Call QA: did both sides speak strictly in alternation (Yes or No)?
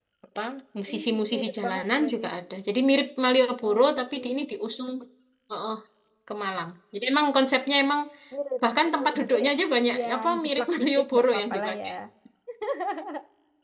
No